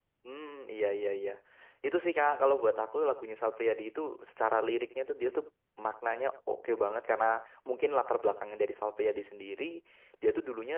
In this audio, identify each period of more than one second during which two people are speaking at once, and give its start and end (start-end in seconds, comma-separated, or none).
none